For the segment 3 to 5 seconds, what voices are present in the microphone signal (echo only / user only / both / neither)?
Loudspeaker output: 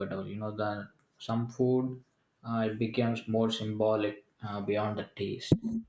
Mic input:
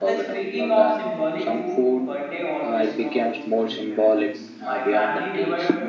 both